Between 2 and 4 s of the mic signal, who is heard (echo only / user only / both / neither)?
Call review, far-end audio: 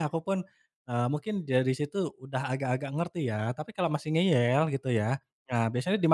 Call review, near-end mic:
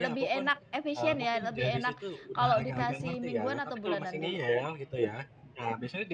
both